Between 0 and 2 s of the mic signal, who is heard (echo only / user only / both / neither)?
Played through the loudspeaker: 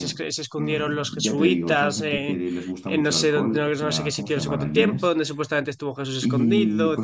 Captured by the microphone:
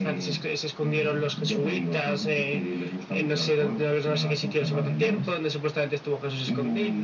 echo only